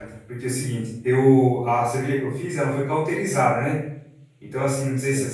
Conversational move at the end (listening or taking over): listening